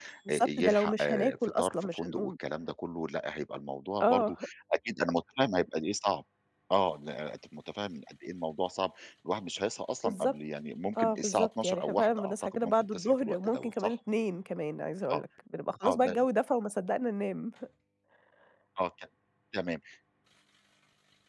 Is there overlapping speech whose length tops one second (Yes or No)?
Yes